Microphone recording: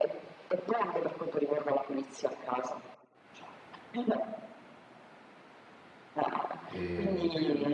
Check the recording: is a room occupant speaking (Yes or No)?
Yes